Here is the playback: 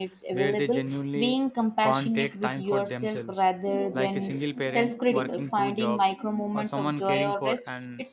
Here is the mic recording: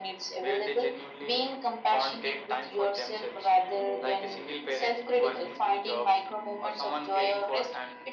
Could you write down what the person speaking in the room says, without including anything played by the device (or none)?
none